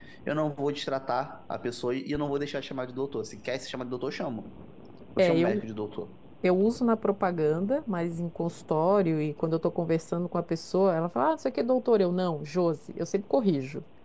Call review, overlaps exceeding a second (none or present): none